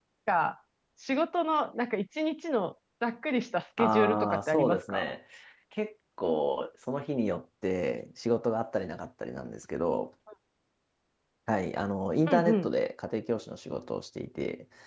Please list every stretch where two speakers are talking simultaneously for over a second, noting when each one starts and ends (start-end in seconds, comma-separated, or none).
3.8-5.1